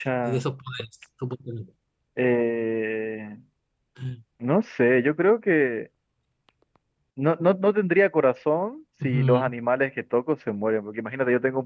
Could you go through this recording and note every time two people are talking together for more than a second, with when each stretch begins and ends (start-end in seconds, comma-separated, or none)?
none